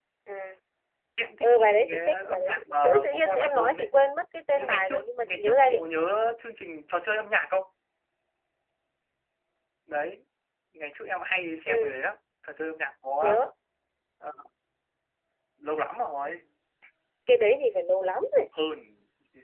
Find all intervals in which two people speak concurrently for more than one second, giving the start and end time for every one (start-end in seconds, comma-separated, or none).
1.4-3.9, 4.5-5.8